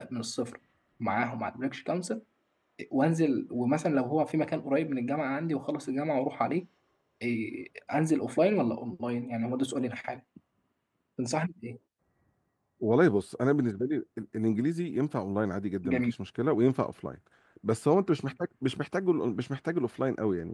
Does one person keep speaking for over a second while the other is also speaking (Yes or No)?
No